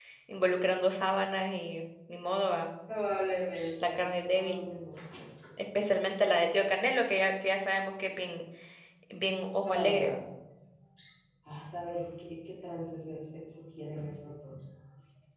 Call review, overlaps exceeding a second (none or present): none